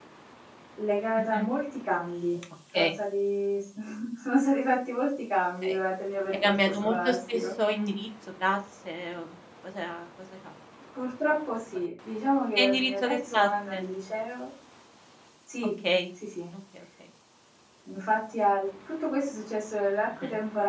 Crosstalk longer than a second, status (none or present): present